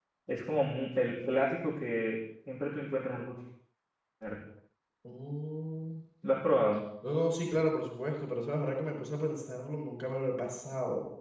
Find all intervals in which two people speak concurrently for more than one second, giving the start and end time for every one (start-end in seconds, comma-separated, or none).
none